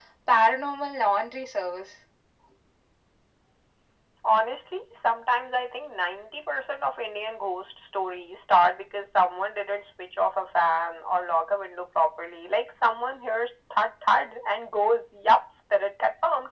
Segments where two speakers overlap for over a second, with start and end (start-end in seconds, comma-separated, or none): none